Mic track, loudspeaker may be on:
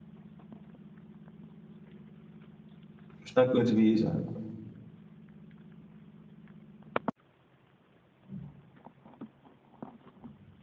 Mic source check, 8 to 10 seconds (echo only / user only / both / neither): neither